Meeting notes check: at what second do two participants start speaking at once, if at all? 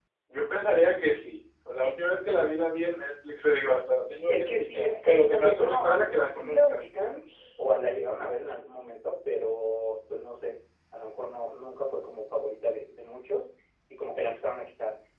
4 s

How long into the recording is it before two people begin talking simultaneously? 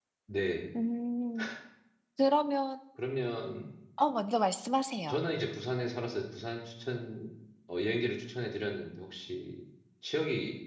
none

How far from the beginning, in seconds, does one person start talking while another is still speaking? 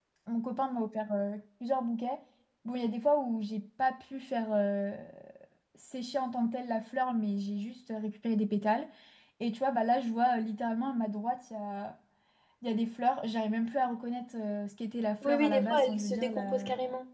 15 s

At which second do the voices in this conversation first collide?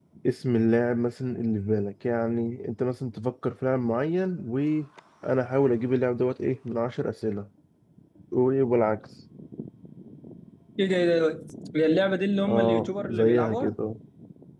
12 s

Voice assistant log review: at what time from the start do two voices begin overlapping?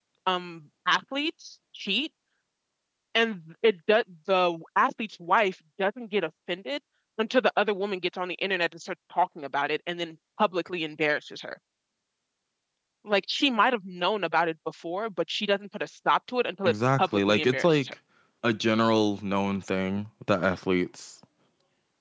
17 s

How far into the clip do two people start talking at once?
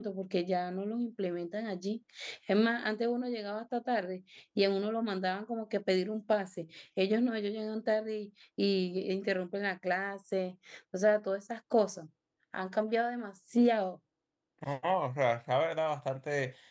none

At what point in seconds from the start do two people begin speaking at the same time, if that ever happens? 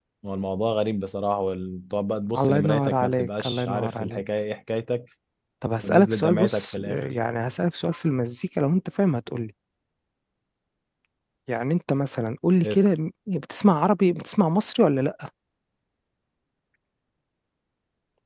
2 s

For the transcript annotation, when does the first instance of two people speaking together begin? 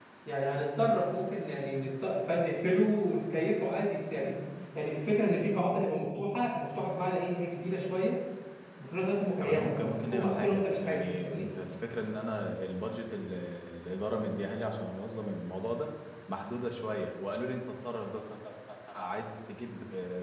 9 s

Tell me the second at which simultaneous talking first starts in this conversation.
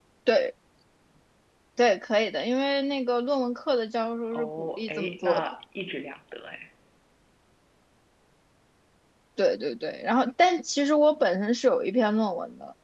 4 s

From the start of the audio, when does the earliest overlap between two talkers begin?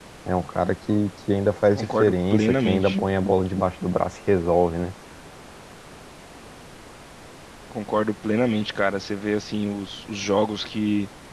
2 s

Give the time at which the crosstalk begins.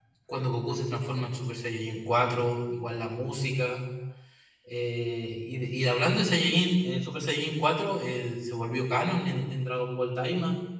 none

